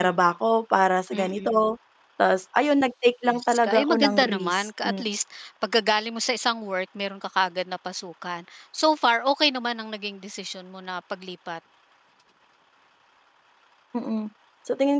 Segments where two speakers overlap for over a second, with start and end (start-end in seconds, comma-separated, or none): 3.3-5.0